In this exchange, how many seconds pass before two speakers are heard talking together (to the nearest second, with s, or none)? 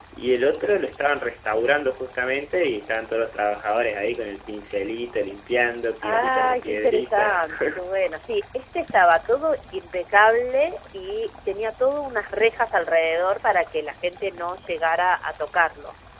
6 s